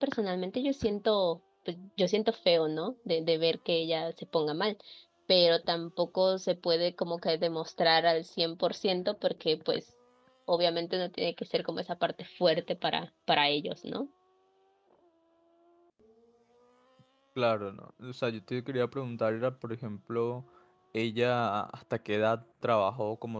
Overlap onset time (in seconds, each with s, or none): none